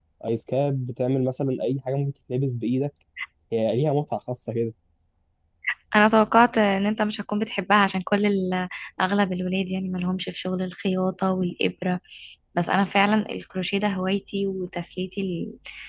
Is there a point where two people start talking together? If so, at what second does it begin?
none

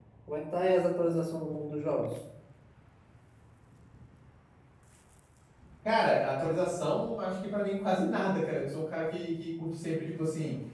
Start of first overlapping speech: none

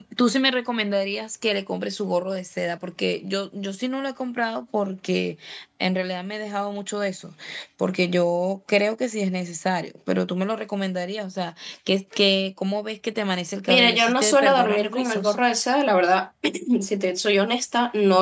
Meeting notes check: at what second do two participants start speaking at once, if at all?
13.7 s

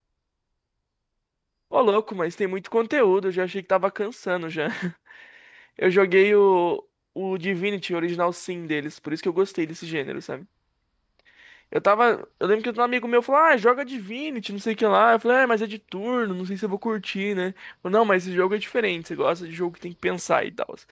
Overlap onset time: none

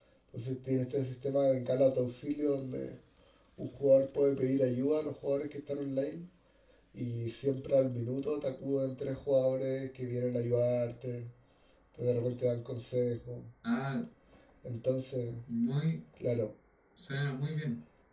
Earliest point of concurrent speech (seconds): none

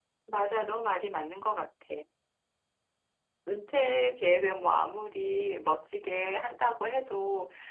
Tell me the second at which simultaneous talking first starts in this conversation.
none

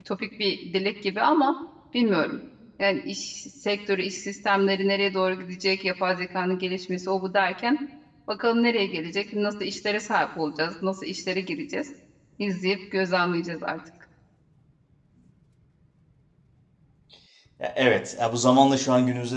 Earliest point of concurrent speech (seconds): none

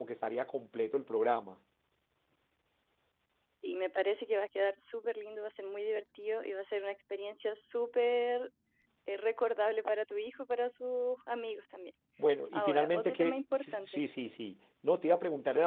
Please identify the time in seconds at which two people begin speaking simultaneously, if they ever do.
12.5 s

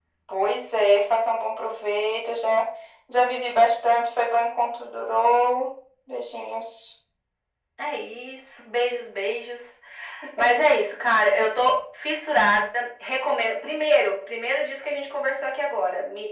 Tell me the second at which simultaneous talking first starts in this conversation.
none

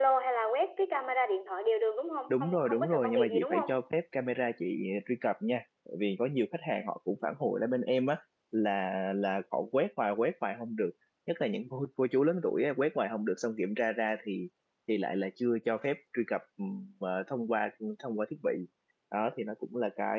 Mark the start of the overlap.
2.3 s

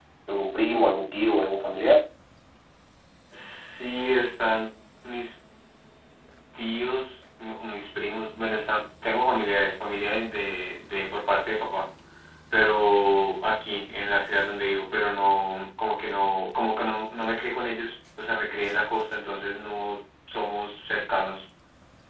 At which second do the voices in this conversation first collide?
none

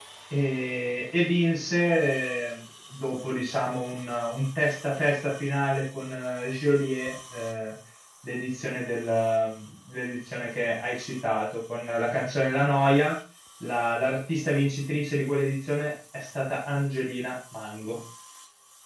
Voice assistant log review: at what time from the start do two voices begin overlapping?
none

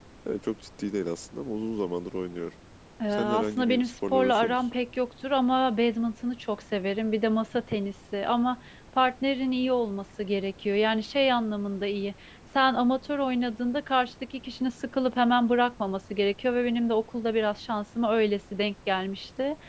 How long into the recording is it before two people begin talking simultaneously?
3.1 s

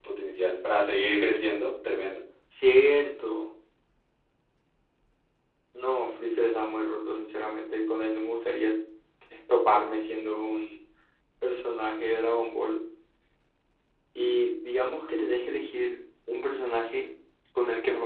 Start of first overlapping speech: none

